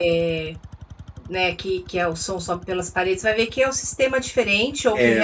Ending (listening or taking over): listening